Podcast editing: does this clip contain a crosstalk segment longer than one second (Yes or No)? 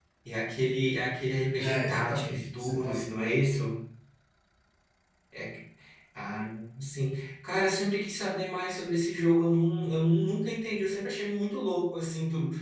Yes